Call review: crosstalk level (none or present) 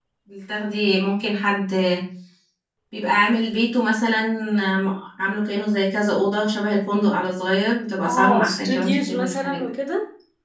present